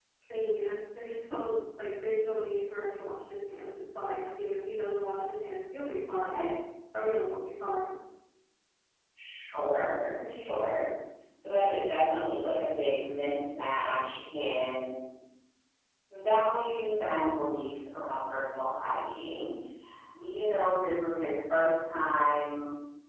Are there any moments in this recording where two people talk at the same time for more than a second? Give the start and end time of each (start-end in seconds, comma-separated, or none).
none